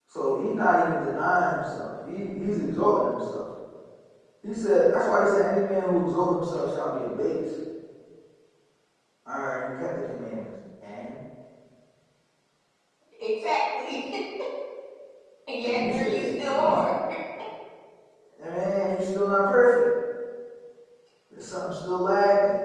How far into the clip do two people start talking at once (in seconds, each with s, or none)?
15.6 s